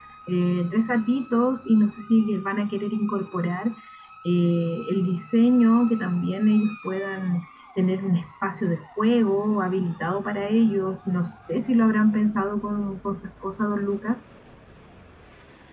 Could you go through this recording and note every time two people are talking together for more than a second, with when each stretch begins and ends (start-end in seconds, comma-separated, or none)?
none